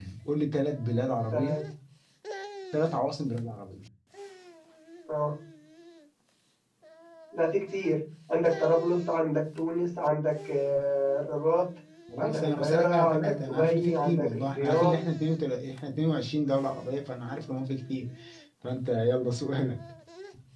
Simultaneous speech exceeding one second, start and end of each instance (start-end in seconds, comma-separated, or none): 12.2-15.0